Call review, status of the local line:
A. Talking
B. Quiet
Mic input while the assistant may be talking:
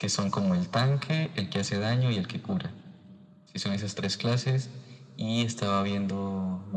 B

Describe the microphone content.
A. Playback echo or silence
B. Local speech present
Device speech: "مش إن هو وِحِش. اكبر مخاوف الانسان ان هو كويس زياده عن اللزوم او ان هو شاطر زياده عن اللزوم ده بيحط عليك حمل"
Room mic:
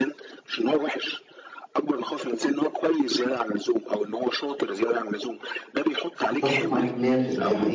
B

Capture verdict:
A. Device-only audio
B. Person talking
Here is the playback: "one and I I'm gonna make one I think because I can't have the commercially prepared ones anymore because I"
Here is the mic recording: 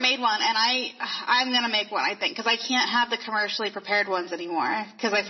A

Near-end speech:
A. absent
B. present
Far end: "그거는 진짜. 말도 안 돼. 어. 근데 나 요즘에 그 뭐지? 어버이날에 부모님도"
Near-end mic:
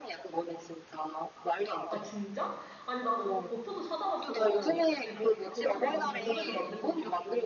B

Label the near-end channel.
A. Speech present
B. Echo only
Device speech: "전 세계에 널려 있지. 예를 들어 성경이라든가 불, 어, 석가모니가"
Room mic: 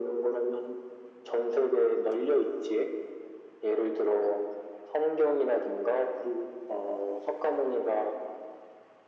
B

